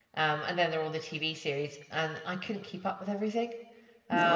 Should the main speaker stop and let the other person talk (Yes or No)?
Yes